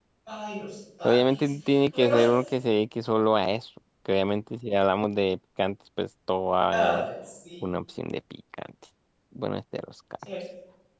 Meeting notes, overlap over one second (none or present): none